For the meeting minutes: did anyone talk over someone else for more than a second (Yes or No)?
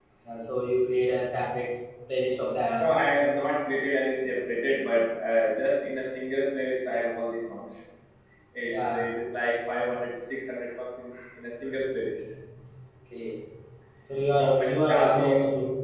Yes